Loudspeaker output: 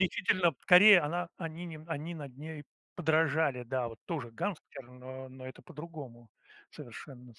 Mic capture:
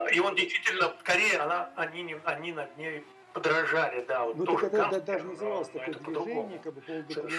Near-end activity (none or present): present